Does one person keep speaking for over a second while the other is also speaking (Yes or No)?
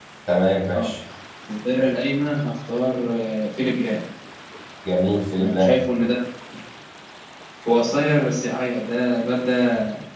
No